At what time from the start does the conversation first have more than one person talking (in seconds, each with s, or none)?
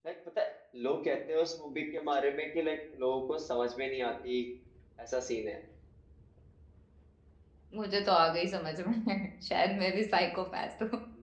none